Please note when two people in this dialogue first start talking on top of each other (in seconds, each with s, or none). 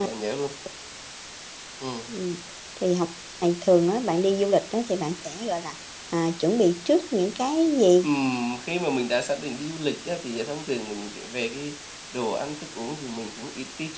none